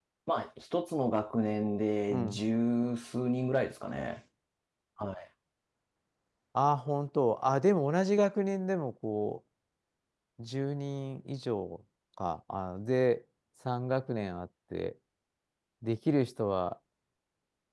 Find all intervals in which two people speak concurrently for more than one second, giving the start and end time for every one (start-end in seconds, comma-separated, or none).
none